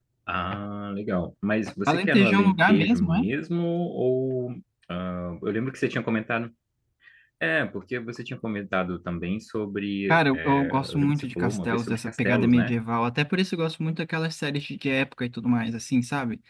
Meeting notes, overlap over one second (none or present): present